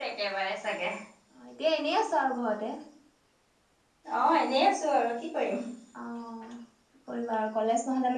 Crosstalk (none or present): none